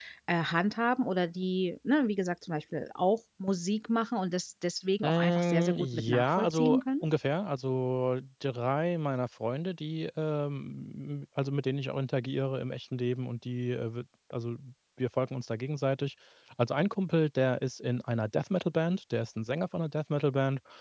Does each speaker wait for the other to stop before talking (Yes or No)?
No